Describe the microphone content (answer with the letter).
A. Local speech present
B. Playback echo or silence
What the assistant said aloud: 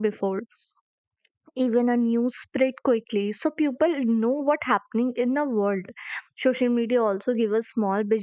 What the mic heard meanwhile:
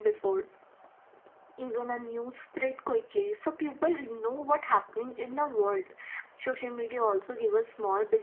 B